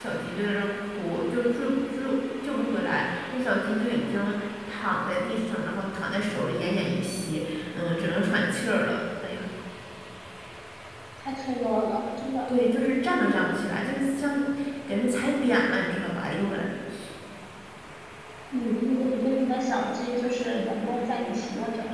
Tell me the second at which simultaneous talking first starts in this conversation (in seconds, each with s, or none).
none